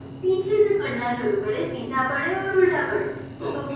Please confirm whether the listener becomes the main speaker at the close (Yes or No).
No